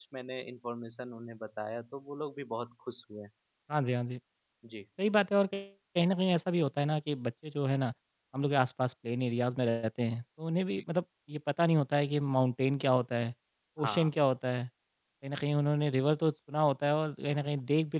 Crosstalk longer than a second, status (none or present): none